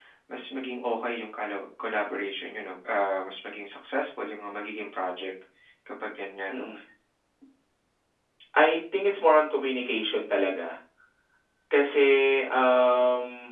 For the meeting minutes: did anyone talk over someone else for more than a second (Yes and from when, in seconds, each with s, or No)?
No